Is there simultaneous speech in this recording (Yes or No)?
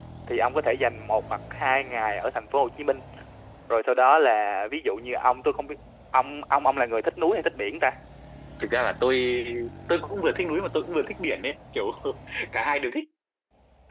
No